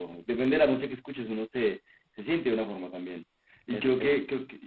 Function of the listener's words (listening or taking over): listening